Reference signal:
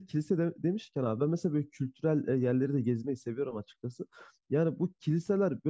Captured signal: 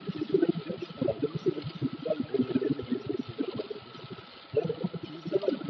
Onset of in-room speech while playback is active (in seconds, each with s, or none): none